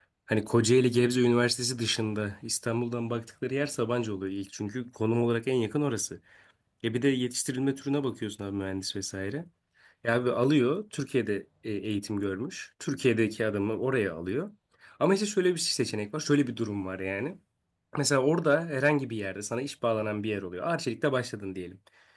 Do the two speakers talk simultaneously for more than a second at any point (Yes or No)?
No